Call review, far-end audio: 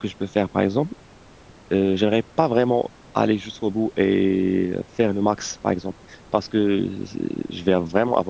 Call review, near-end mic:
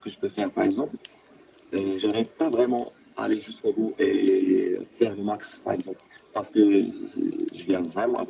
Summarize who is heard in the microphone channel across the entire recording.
echo only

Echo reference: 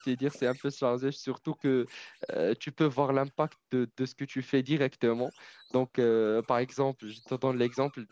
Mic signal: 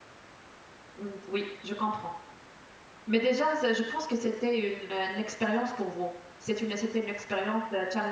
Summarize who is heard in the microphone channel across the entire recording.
user only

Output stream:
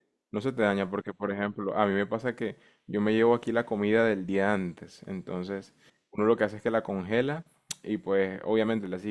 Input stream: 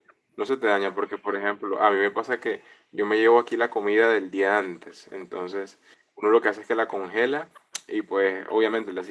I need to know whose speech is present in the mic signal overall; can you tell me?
echo only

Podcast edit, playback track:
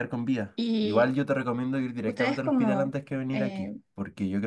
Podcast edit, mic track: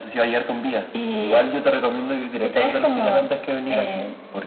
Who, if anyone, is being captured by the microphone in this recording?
echo only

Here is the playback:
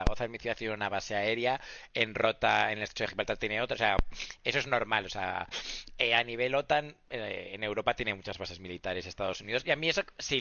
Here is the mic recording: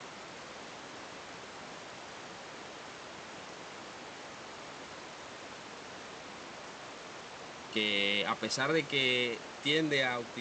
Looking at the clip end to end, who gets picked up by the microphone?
user only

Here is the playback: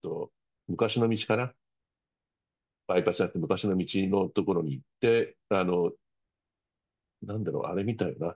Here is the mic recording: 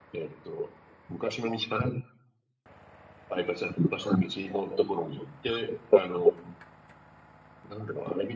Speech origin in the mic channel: echo only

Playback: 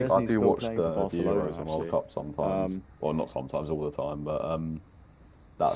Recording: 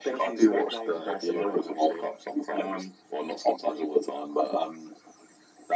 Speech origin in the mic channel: echo only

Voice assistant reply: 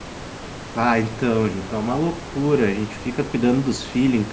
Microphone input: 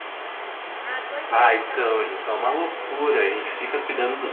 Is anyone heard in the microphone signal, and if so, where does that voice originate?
both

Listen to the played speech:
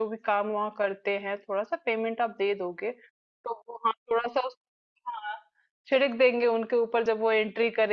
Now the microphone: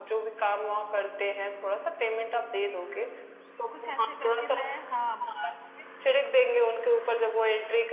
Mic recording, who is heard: both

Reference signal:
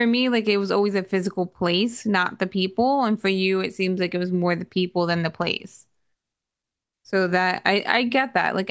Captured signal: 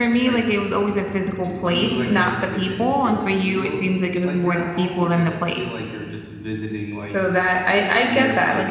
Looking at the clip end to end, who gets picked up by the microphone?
both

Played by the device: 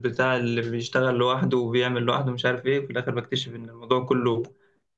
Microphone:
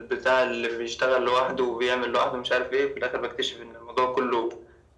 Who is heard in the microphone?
echo only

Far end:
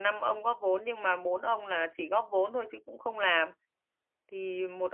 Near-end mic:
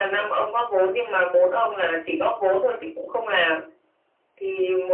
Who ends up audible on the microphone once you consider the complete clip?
echo only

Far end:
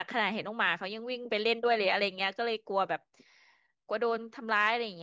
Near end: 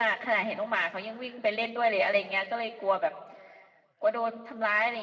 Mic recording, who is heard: echo only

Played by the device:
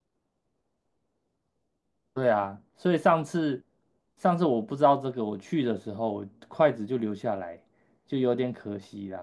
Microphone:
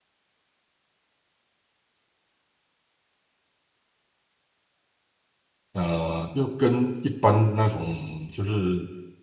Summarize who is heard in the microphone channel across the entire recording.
user only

